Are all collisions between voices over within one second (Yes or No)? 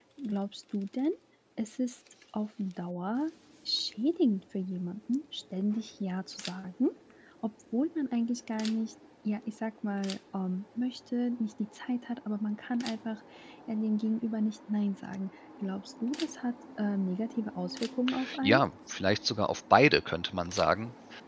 Yes